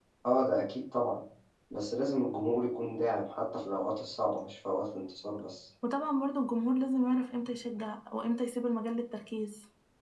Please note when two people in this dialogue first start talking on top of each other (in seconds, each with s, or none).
none